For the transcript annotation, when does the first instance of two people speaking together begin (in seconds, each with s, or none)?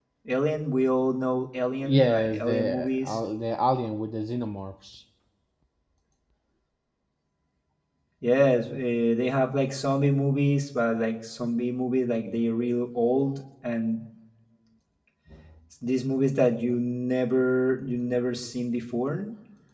1.8 s